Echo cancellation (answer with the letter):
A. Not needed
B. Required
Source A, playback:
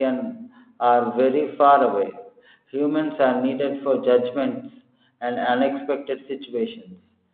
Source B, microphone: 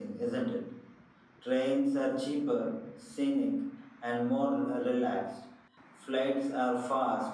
A